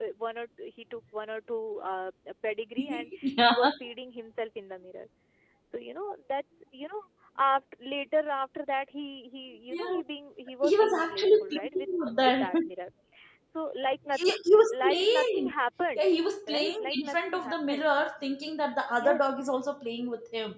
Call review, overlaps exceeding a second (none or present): present